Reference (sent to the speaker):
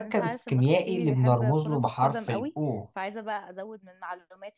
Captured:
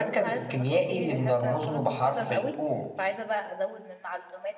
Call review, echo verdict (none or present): present